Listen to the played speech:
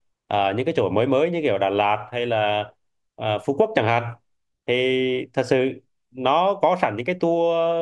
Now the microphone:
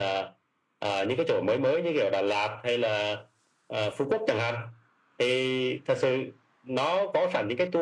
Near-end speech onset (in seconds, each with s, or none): none